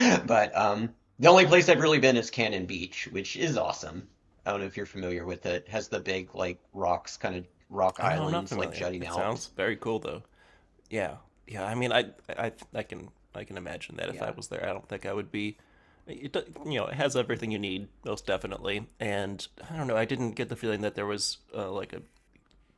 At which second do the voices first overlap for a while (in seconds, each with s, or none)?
8.0 s